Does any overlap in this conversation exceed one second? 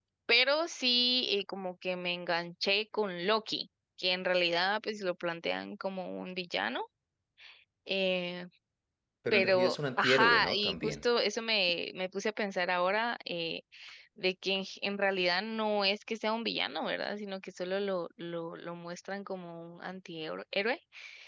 Yes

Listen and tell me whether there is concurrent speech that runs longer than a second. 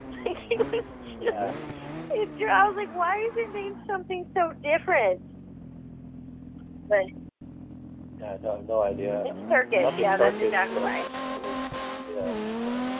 Yes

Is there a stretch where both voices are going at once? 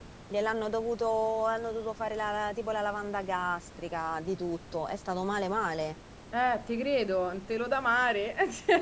No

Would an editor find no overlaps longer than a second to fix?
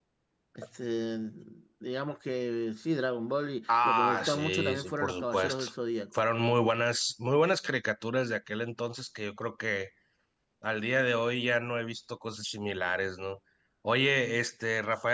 No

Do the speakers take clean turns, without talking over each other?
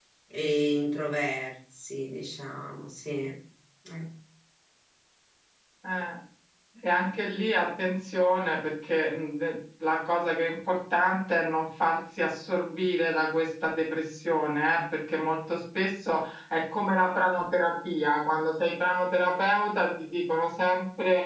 Yes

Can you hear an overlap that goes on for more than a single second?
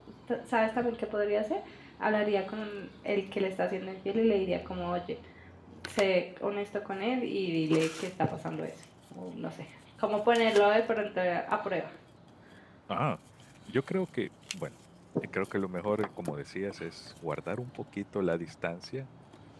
No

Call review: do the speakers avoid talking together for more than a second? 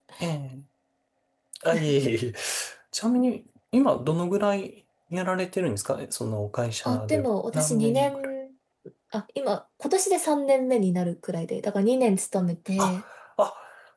No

